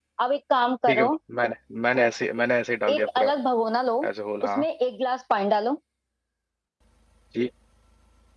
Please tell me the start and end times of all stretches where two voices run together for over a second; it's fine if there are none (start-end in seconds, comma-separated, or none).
none